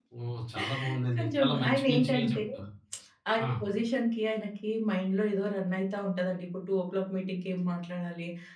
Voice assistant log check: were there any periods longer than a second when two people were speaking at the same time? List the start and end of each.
1.2-2.4

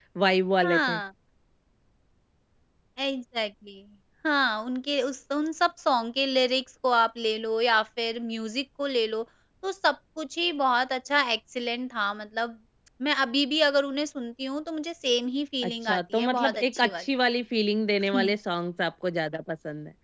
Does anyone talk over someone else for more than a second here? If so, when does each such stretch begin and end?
15.6-17.0

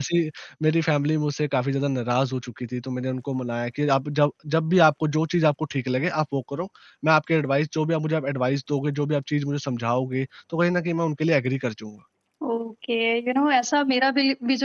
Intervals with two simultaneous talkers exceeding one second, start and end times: none

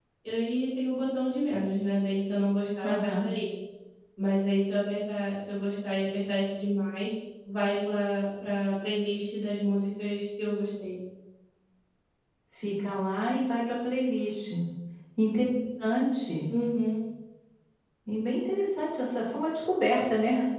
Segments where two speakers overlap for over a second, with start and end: none

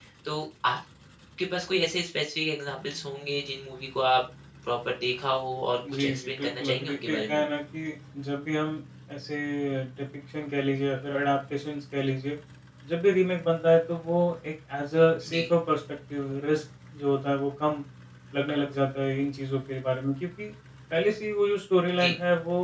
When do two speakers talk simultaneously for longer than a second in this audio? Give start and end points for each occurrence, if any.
5.9-7.4

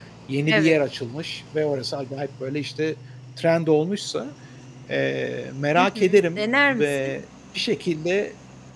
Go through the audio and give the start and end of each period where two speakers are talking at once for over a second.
5.8-7.1

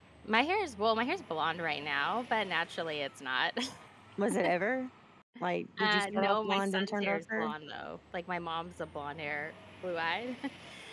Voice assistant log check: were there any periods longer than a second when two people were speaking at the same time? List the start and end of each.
5.8-7.5

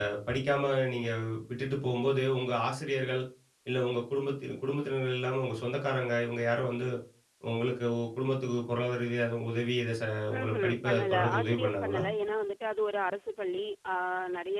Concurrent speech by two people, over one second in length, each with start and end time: 10.4-12.0

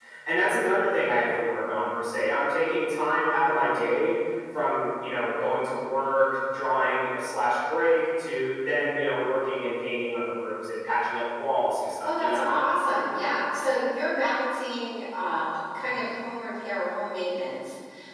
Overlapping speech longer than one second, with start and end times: none

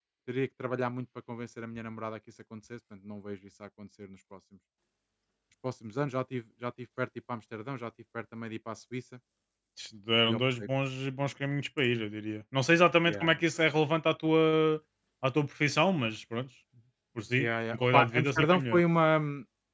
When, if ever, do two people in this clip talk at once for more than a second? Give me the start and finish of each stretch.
17.4-18.8

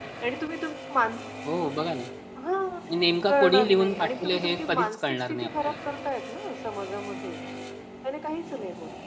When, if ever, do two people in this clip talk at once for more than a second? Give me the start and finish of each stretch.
3.3-5.8

